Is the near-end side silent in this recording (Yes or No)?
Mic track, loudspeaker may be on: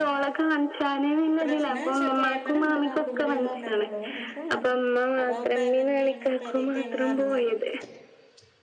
No